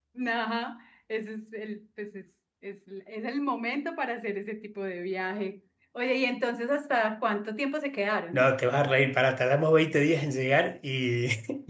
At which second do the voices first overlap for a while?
none

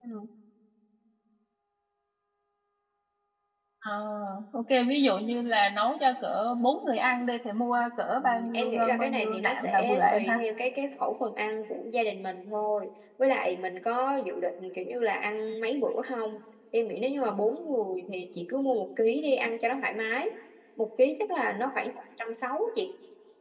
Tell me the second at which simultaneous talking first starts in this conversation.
8 s

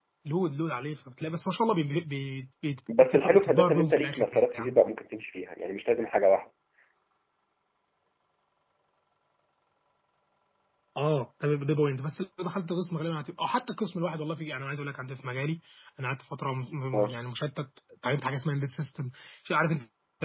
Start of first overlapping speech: 3 s

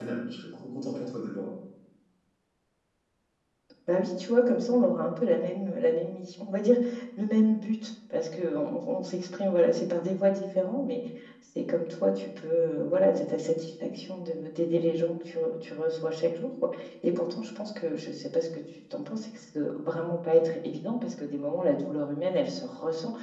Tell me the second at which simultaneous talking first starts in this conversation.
none

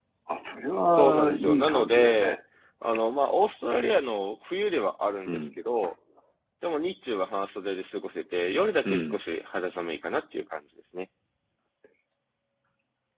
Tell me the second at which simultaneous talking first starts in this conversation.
1 s

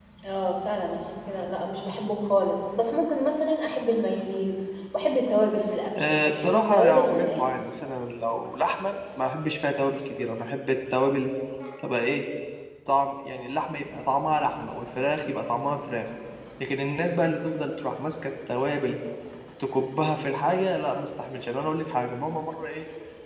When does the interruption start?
6 s

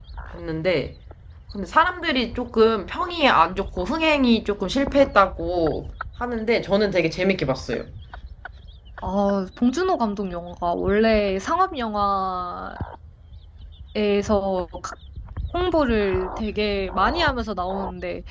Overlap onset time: none

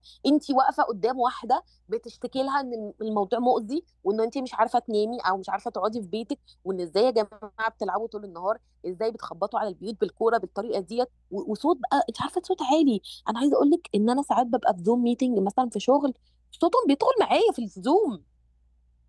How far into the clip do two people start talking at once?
none

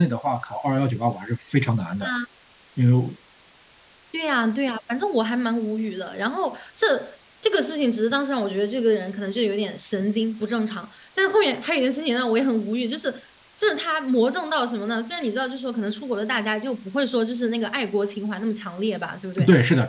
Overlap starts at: none

